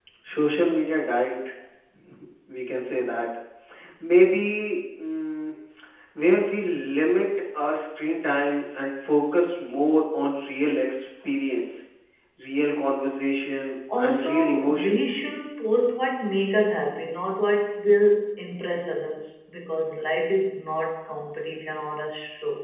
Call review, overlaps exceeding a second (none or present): present